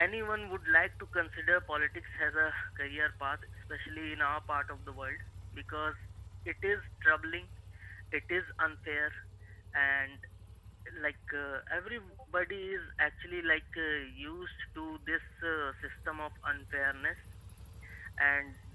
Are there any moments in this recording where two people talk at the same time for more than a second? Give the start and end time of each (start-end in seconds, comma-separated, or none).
none